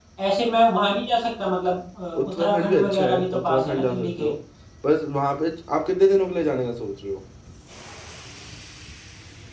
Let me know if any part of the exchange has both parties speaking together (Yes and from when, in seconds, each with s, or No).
Yes, from 2.1 s